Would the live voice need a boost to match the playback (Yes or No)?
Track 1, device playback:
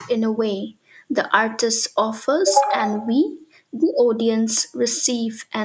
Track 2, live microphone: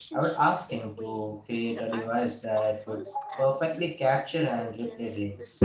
No